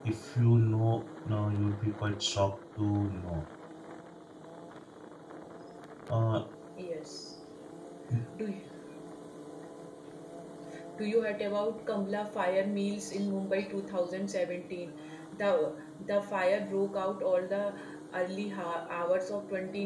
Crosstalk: none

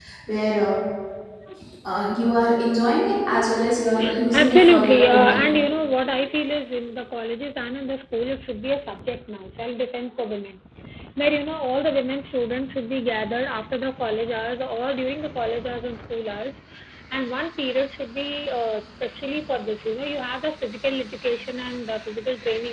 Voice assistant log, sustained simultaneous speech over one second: present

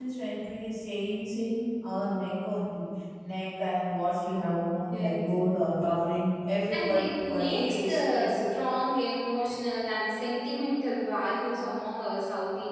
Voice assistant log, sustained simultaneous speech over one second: present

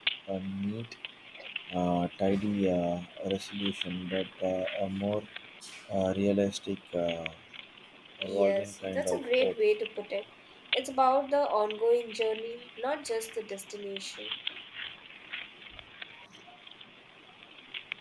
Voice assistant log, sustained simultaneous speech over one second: present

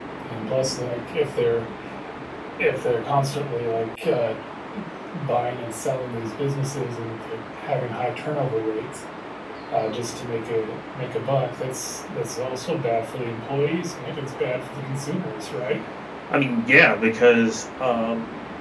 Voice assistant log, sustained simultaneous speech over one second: none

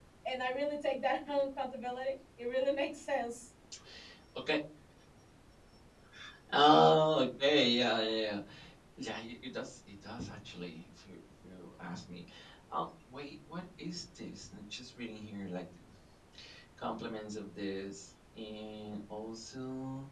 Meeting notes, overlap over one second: none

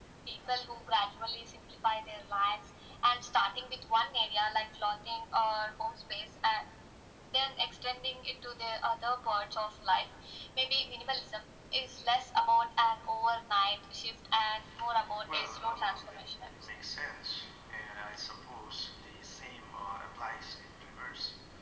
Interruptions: present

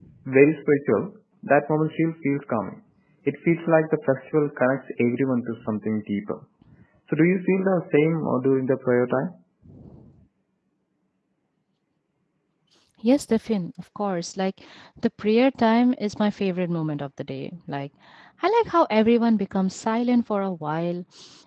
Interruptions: none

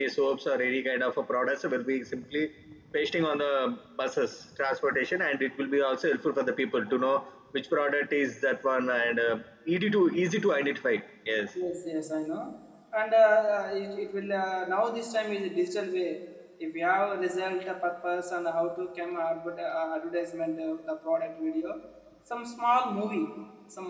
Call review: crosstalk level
none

